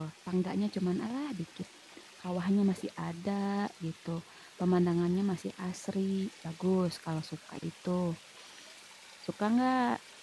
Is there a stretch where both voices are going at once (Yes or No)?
No